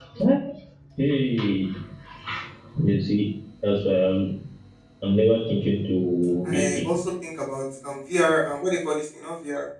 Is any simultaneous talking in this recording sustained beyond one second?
No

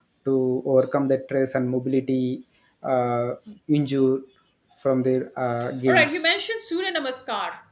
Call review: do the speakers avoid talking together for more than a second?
Yes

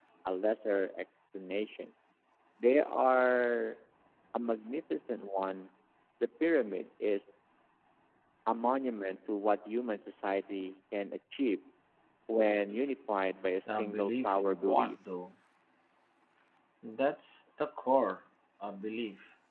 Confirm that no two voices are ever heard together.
No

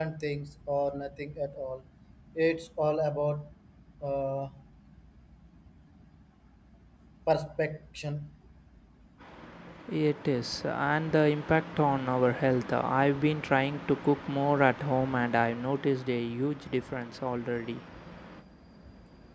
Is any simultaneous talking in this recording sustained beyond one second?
No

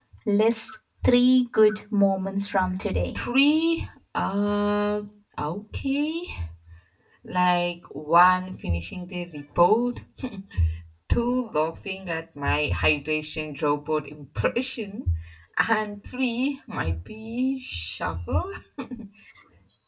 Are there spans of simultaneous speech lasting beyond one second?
No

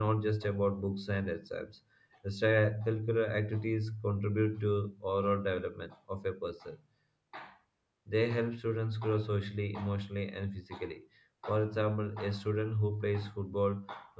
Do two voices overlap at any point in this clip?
No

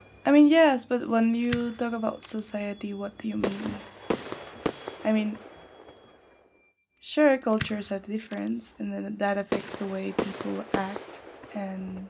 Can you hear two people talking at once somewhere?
No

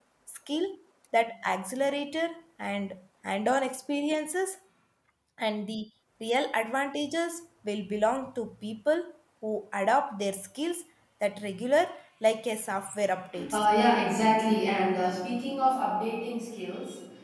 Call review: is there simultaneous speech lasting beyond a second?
No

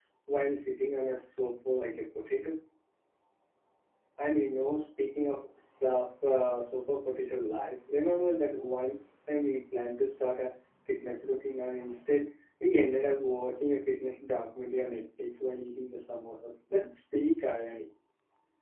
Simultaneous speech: No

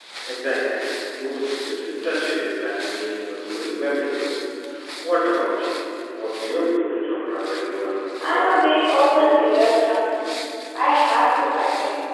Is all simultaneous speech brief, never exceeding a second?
No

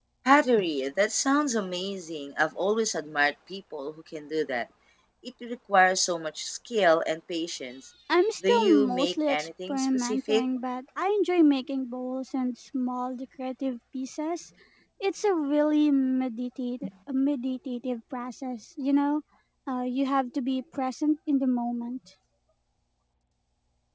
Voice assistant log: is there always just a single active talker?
No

